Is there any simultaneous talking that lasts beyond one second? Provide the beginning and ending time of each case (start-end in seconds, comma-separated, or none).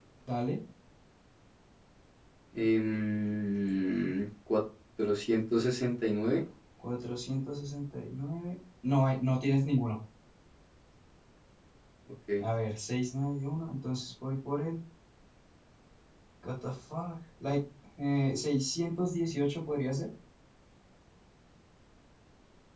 none